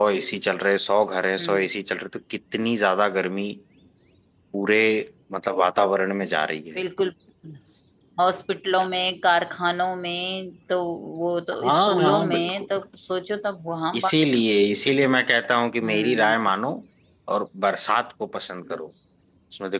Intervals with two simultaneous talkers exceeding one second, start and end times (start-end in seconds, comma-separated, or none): 11.5-12.8